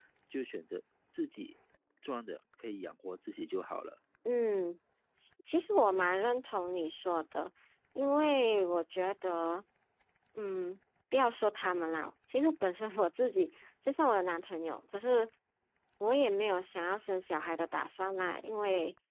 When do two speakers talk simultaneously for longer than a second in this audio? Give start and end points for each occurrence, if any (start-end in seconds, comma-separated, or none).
none